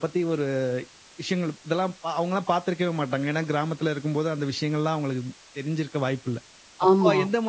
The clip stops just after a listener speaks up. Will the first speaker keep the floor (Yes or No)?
Yes